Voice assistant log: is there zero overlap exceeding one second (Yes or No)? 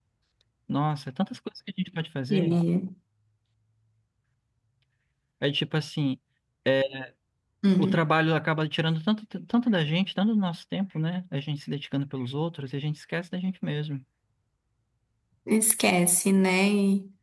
Yes